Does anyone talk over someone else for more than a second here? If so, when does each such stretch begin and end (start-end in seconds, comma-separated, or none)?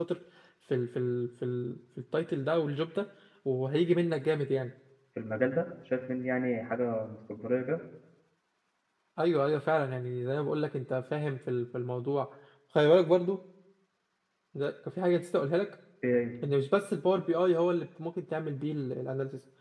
none